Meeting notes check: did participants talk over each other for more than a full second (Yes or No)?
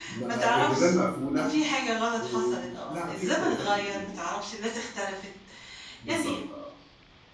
Yes